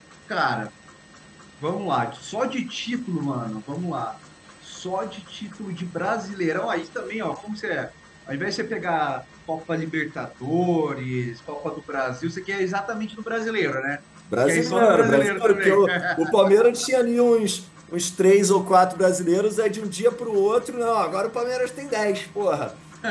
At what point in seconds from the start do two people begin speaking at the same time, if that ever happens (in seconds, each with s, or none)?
14.3 s